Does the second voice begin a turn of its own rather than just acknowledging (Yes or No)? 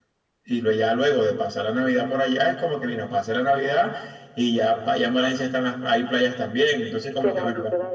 Yes